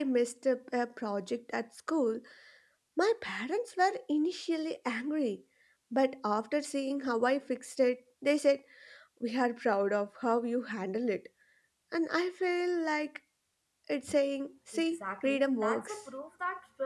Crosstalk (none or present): present